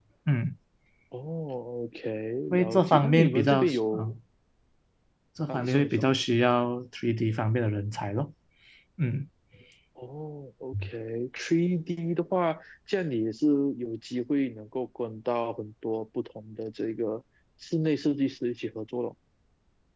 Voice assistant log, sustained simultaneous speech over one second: present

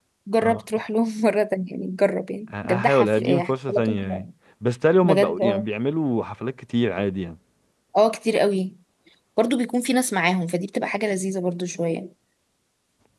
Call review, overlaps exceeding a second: present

